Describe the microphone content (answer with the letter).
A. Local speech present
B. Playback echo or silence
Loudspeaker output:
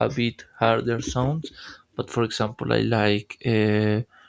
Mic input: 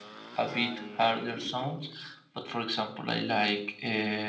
A